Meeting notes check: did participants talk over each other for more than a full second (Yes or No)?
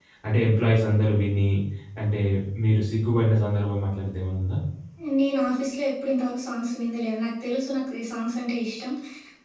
No